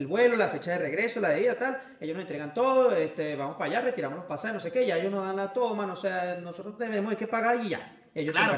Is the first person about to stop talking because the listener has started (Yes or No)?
Yes